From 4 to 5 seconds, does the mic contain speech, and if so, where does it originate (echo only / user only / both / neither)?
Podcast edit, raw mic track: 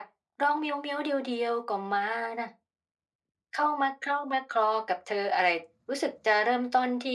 echo only